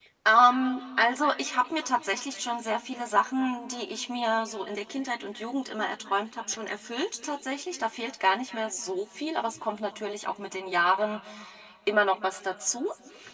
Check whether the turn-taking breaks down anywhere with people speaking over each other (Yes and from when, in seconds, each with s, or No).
No